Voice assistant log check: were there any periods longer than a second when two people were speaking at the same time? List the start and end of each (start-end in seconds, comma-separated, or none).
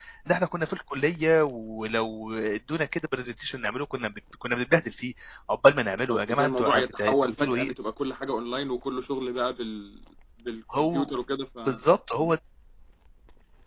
6.1-7.7